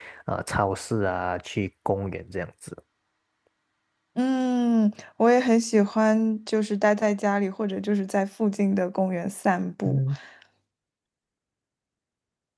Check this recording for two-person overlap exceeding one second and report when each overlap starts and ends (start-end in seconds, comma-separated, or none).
none